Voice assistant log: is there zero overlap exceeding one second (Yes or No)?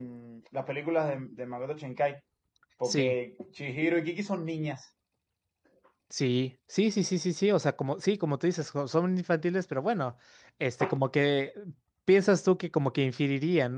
Yes